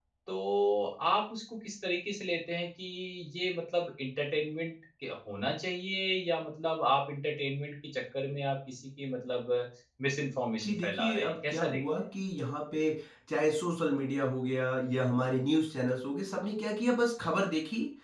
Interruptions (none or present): present